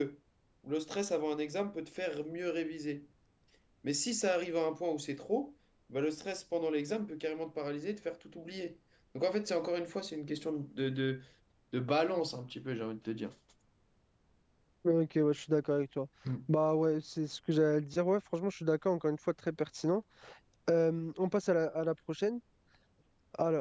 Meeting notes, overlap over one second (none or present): none